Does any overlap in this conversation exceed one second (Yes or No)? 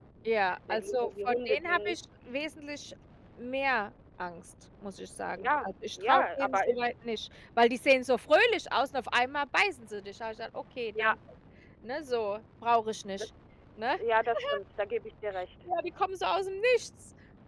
Yes